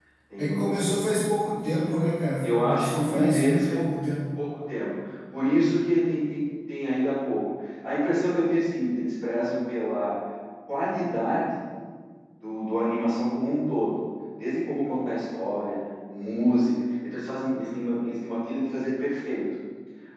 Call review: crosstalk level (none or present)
present